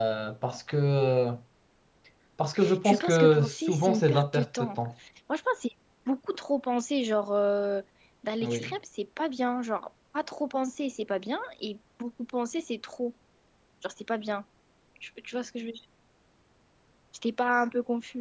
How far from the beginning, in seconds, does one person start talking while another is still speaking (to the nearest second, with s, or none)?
3 s